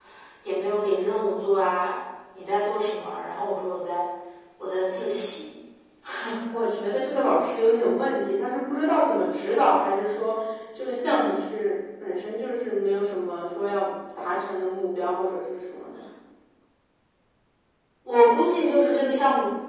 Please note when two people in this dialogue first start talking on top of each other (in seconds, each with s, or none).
none